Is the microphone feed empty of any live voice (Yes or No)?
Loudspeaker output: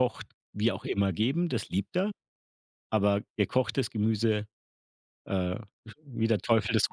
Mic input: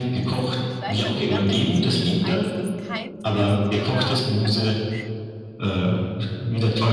No